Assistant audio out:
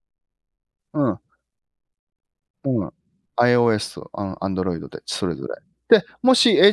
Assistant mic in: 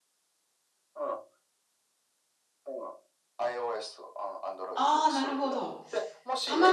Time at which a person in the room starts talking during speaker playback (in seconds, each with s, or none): 4.7 s